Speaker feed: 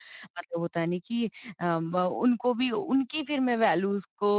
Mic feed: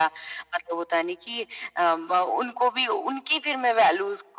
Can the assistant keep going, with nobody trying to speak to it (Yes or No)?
Yes